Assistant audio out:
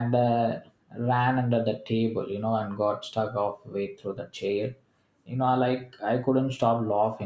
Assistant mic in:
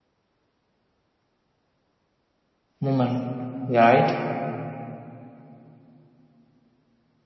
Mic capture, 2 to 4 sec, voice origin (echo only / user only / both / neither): user only